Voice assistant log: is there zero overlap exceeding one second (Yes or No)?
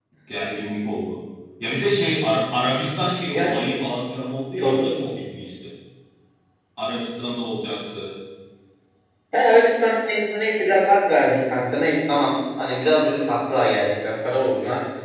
Yes